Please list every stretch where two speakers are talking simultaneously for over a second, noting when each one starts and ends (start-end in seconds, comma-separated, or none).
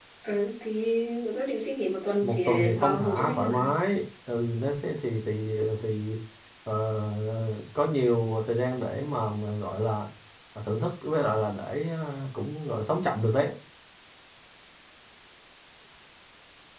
2.2-3.6